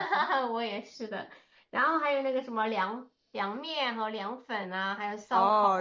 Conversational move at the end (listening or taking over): taking over